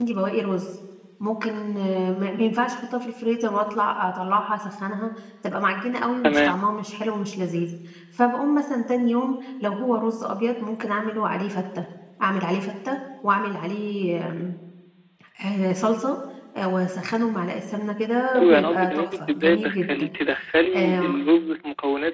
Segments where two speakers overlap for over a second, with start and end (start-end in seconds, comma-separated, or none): 18.4-20.1